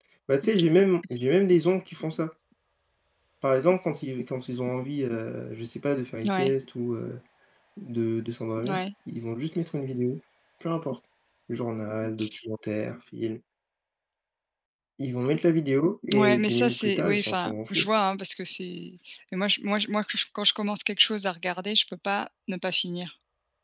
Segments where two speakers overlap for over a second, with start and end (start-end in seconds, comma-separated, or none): 16.2-17.9